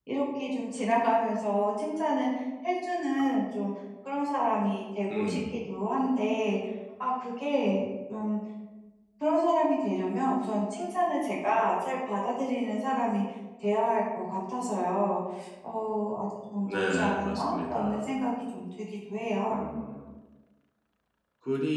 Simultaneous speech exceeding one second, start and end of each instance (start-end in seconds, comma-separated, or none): 16.6-18.0